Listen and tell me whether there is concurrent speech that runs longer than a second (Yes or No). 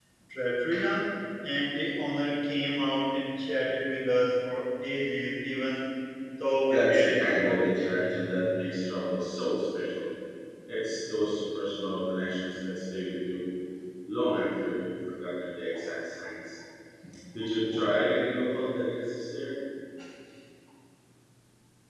Yes